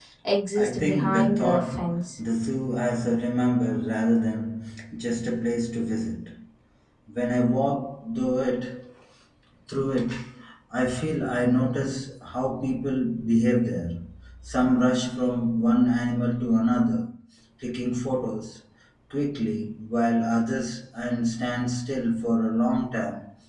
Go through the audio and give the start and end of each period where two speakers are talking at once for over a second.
0.6-2.0

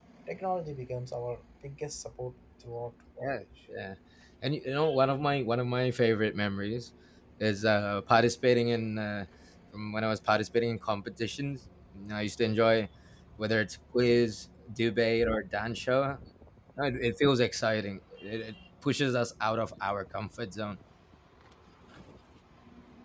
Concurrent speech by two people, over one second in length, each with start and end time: none

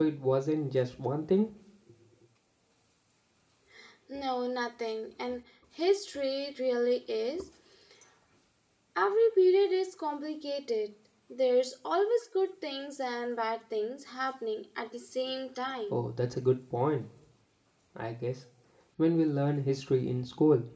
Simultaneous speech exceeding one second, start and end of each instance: none

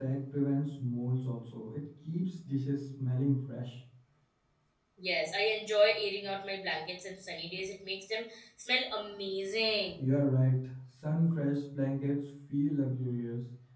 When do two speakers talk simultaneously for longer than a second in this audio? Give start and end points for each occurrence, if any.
none

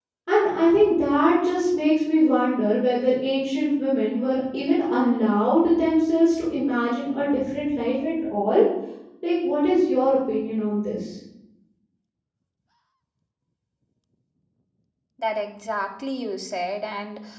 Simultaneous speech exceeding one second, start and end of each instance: none

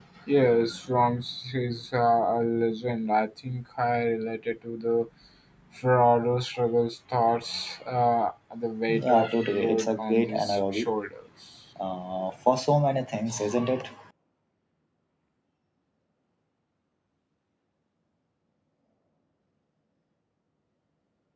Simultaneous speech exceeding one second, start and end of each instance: 9.0-10.9

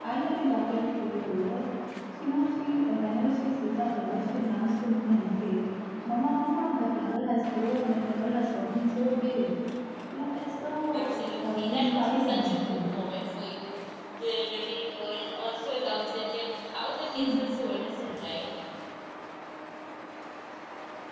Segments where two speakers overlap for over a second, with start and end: 10.9-12.9

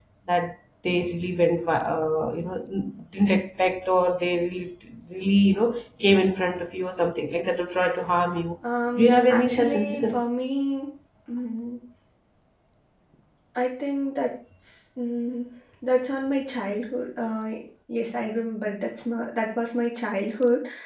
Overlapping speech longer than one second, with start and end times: 8.9-10.2

